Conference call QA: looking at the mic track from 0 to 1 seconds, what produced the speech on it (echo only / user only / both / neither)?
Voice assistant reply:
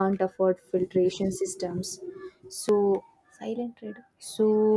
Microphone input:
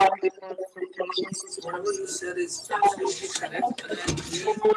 echo only